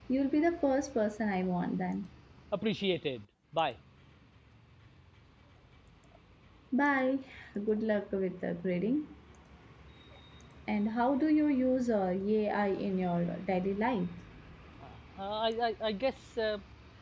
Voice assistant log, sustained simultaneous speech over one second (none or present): none